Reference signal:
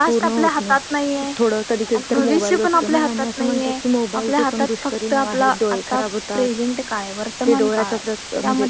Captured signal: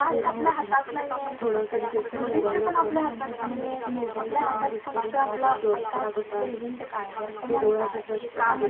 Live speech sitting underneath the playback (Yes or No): Yes